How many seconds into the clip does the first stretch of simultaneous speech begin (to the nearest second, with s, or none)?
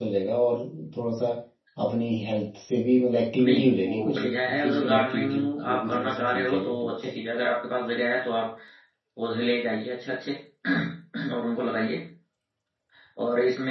3 s